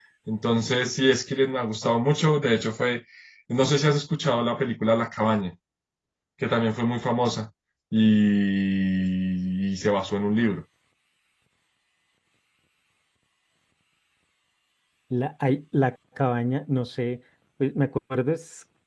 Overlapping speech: No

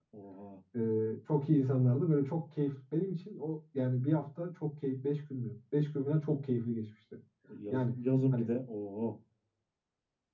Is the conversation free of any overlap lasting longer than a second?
Yes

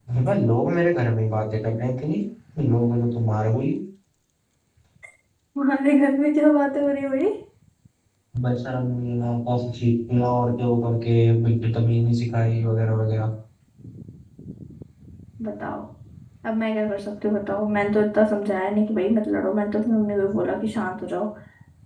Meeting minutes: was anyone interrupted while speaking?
No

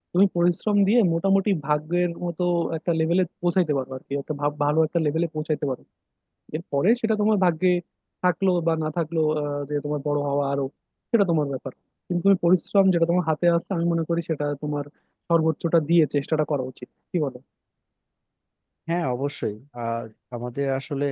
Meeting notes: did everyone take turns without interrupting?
Yes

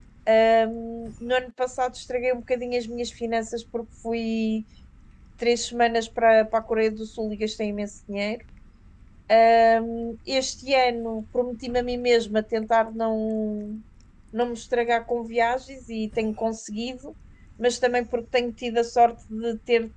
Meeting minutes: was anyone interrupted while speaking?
No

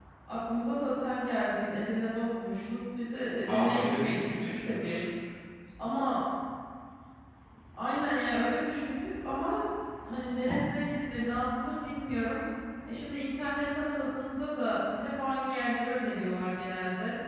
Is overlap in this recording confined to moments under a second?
No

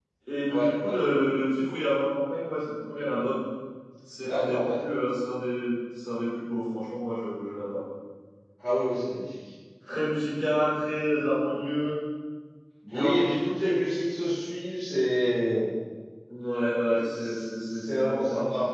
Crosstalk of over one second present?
Yes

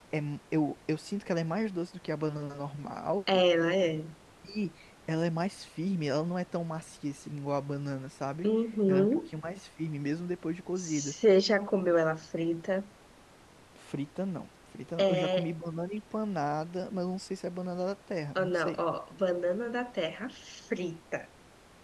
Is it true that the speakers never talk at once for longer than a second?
Yes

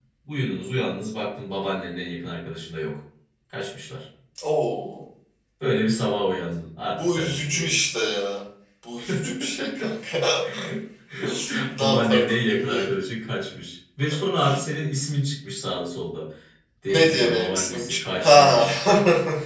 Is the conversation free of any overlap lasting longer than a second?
No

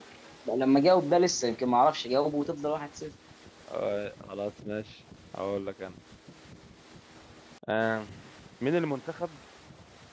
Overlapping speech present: No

